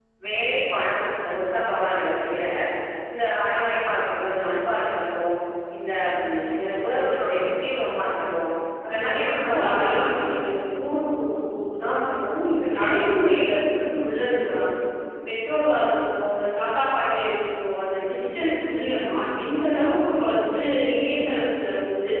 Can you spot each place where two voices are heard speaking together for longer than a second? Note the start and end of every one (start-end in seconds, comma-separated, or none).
8.9-10.5